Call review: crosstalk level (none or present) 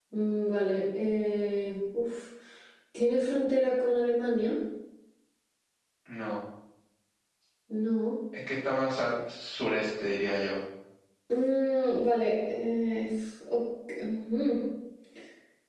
none